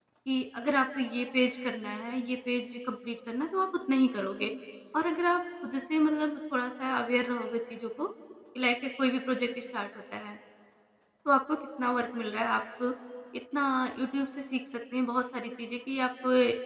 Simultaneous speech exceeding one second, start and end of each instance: none

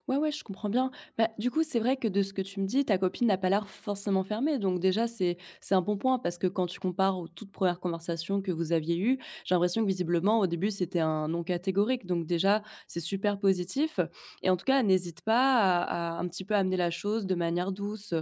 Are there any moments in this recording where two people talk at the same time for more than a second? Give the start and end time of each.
none

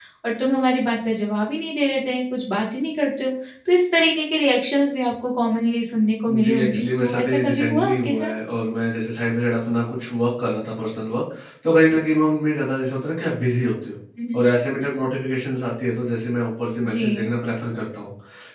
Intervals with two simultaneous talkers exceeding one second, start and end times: 6.3-8.3

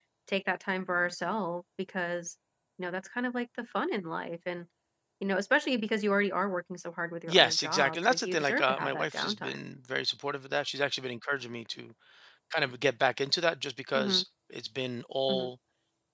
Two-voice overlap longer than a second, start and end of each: 7.3-9.7

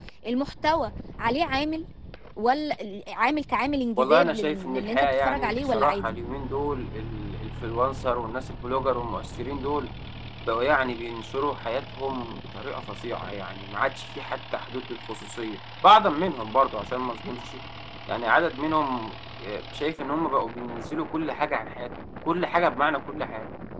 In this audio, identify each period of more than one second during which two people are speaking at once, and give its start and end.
4.0-6.2

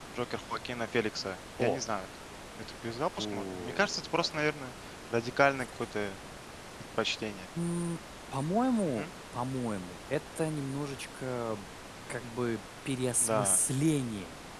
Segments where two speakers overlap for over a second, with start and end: 3.2-4.5

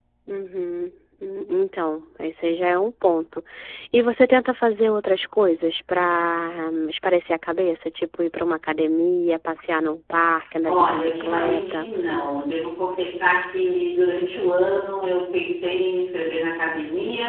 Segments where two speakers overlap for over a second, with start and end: 10.7-11.9

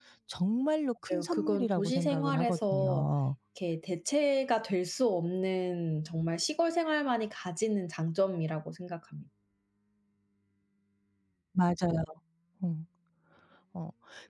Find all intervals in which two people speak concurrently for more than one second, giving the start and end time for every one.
1.1-3.1

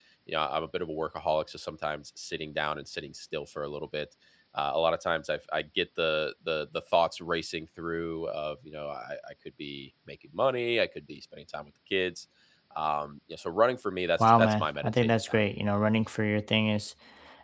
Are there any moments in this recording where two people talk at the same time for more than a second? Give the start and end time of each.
14.2-15.4

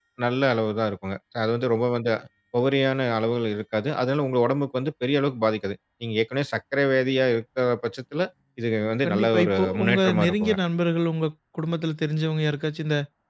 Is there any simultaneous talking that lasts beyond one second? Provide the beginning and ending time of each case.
9.1-10.6

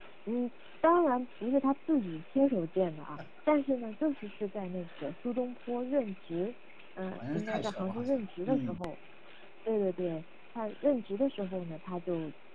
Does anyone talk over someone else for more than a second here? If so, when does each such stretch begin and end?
7.2-8.8

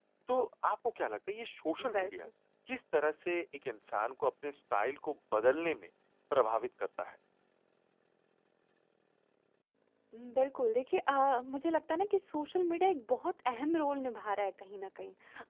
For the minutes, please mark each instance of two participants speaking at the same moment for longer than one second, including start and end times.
none

